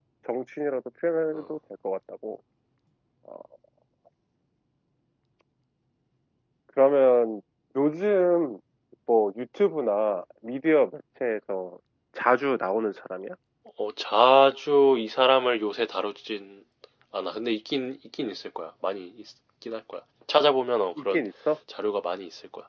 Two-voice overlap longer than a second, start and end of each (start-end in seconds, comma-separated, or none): none